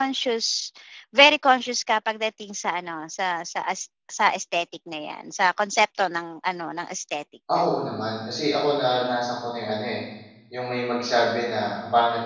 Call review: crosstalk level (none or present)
none